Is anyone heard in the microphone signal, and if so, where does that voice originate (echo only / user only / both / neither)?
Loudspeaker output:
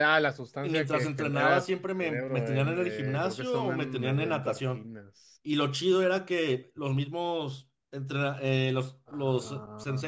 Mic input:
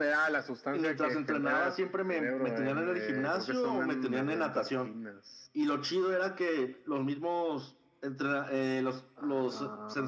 echo only